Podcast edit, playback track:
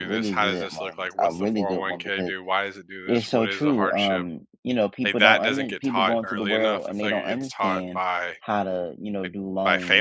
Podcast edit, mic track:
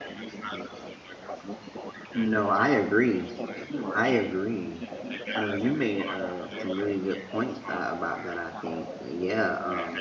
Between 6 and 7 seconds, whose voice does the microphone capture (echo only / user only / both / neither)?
both